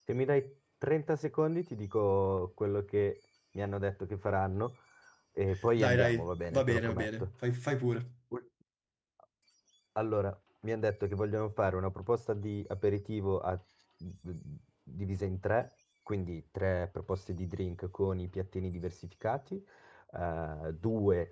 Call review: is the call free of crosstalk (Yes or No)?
No